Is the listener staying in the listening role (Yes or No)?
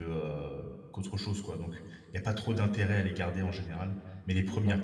Yes